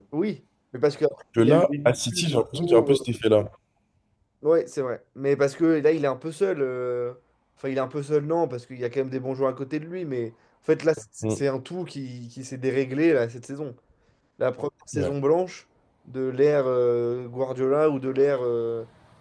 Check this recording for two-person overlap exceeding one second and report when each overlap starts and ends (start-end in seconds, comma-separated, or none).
1.4-3.0